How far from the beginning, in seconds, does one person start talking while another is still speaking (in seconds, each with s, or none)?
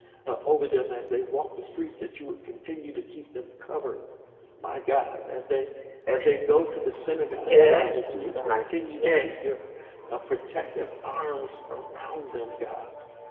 7.4 s